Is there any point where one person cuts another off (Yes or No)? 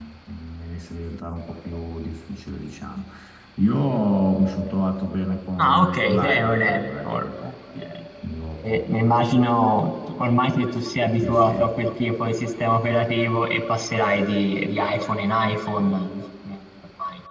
Yes